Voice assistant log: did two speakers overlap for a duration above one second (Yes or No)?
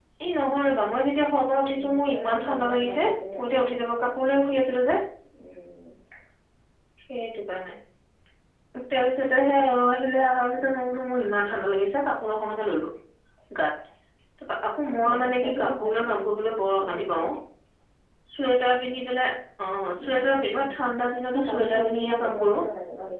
Yes